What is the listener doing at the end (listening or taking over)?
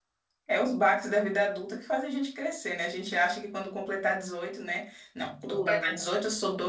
listening